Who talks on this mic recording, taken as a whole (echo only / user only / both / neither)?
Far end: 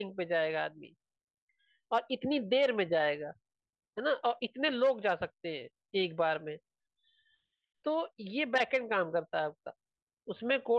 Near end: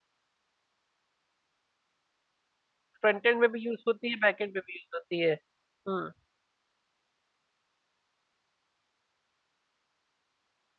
user only